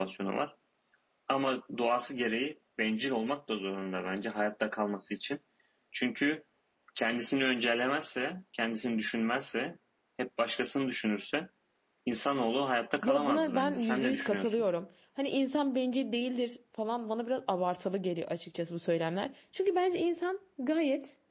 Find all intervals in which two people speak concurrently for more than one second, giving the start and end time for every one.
13.0-14.6

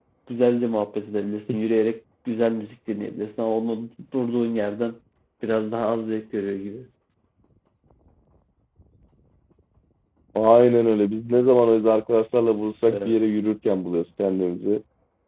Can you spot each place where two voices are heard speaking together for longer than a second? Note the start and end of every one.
none

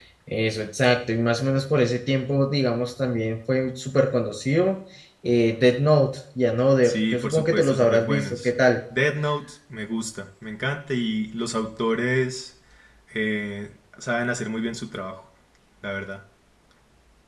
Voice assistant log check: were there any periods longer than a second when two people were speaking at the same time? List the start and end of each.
6.8-8.5

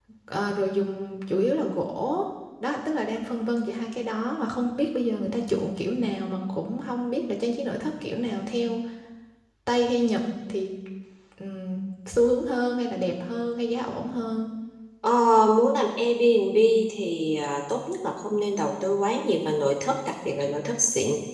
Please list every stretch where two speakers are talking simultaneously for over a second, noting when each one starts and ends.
none

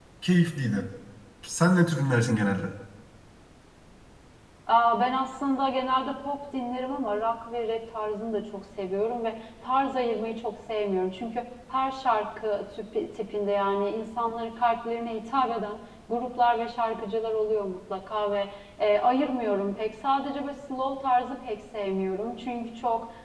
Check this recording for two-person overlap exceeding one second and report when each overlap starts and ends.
none

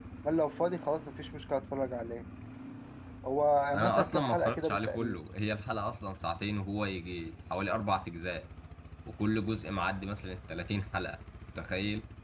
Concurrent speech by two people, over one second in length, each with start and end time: 3.7-5.2

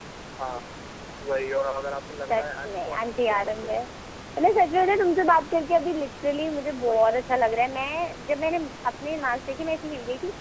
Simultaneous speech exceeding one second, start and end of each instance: 2.3-3.7

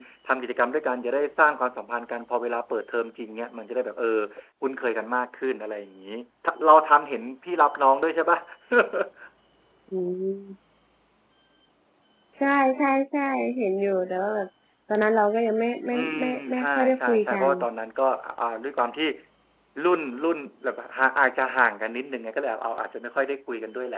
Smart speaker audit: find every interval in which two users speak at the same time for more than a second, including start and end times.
15.9-17.4

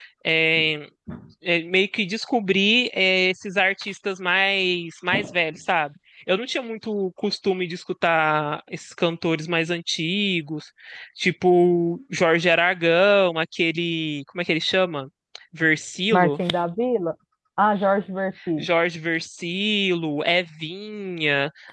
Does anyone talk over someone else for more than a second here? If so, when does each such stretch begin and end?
none

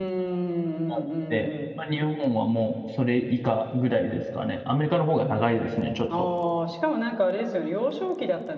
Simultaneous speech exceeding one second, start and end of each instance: none

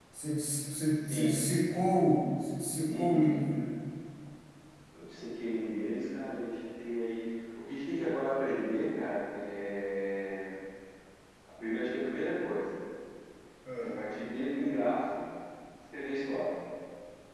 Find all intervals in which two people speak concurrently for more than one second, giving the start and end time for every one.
none

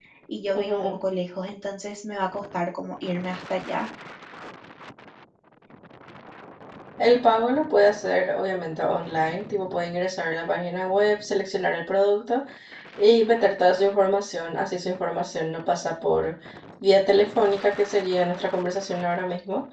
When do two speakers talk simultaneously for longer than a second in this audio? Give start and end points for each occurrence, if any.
none

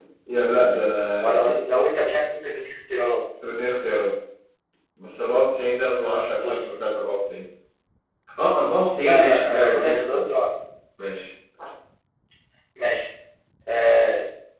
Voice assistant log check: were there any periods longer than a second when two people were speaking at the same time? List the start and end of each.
9.0-10.3

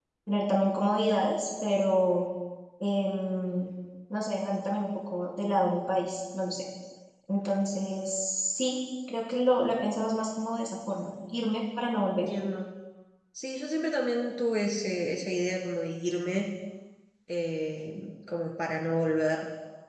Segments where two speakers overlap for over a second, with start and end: none

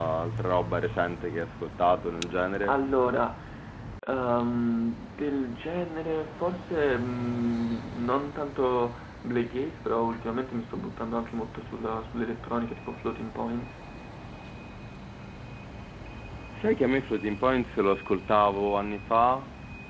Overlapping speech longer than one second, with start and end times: none

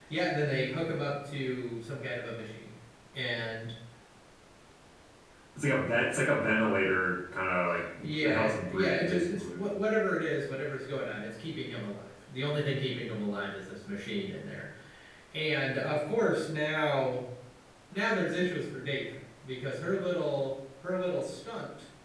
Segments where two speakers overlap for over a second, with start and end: 8.0-9.6

